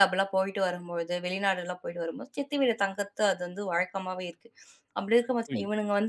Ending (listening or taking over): listening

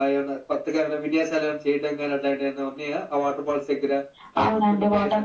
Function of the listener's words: taking over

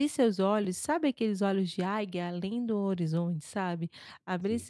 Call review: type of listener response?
listening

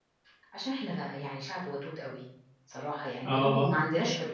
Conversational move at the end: listening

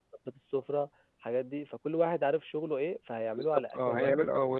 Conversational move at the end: taking over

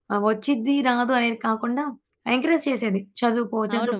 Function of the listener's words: taking over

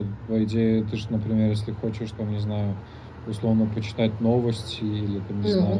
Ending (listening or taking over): listening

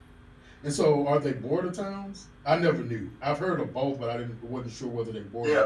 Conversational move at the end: taking over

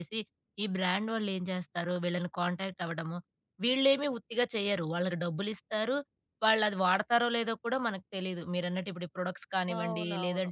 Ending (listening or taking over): listening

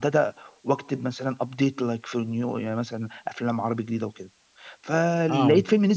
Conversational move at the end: listening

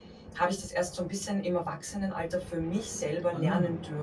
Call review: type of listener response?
taking over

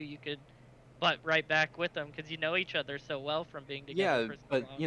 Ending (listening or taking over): taking over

